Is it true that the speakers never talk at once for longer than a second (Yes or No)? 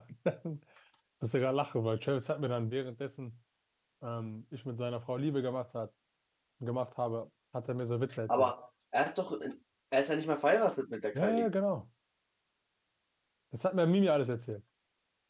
Yes